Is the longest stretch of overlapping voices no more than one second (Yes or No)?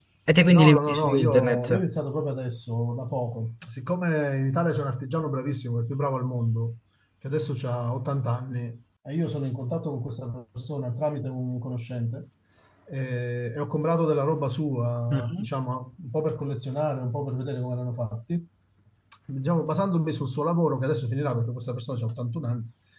No